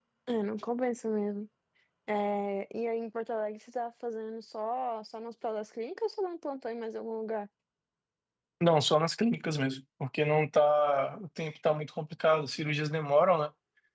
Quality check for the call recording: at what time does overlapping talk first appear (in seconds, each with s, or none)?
none